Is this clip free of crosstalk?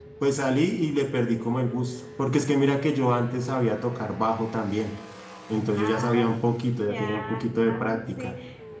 No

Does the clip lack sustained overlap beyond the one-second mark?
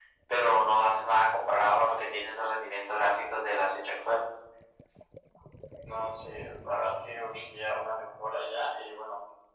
Yes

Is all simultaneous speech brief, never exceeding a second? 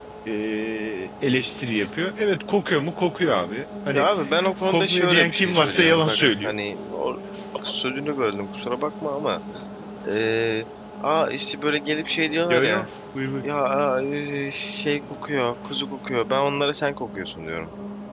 No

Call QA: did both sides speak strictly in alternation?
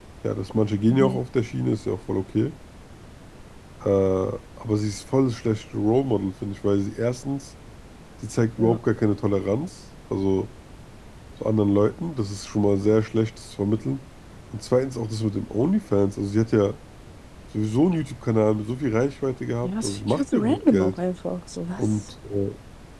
No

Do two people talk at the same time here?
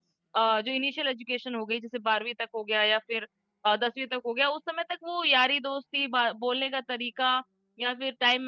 No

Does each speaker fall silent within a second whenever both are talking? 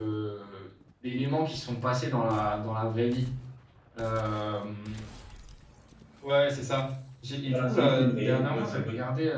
No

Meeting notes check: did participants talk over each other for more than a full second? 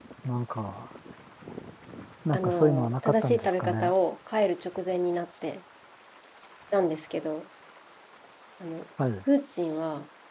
Yes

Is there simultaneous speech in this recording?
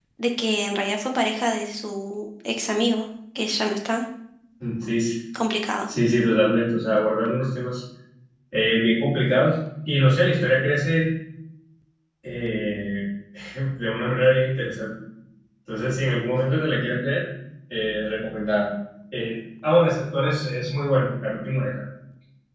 No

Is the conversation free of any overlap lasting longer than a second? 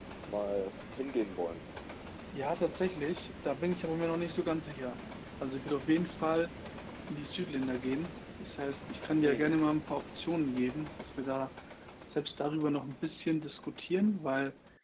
Yes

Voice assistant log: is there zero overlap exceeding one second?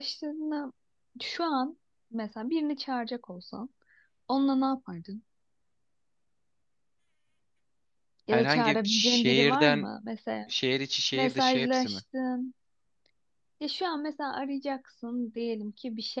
No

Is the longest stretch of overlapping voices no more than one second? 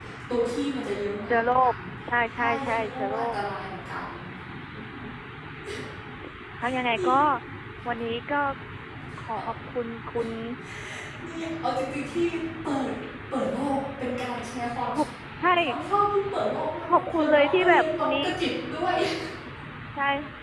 No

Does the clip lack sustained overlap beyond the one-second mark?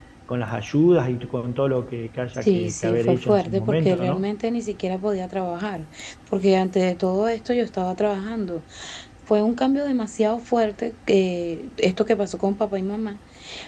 No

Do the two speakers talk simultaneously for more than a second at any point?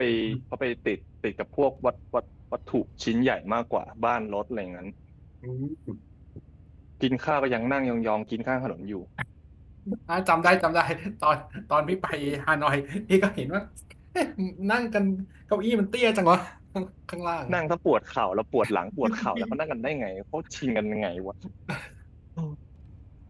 No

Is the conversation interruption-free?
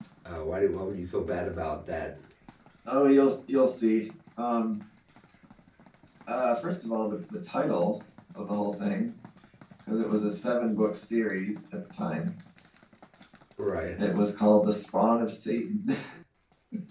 Yes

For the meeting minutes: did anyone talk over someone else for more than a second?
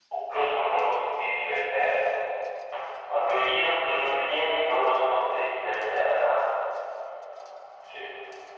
No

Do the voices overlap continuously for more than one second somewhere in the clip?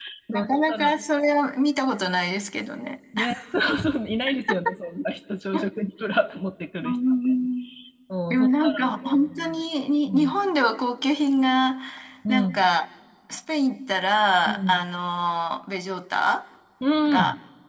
Yes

